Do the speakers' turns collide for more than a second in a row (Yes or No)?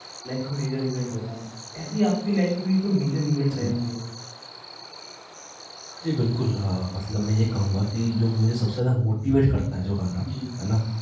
No